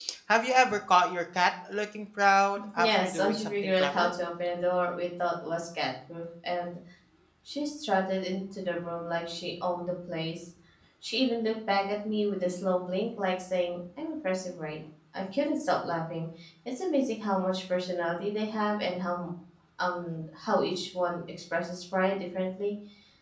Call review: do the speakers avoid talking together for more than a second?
No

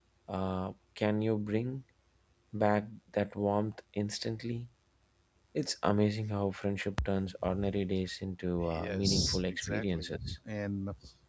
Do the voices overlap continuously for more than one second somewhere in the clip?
Yes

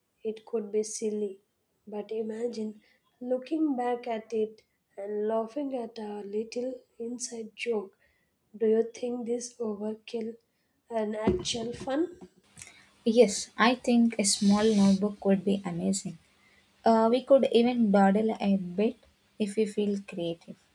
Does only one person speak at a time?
Yes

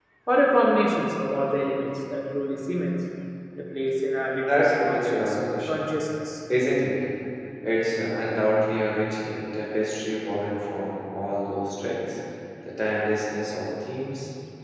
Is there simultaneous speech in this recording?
Yes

